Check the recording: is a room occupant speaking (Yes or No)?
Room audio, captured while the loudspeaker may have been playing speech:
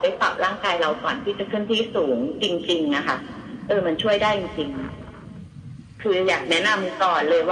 Yes